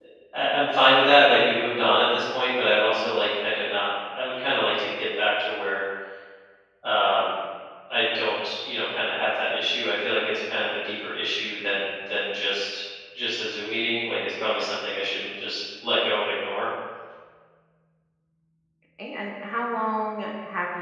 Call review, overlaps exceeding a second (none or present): none